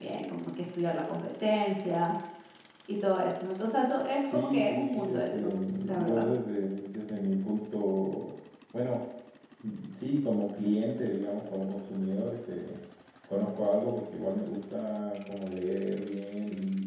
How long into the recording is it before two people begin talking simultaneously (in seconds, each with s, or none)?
4.2 s